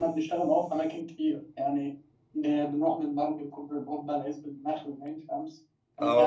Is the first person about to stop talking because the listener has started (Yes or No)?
Yes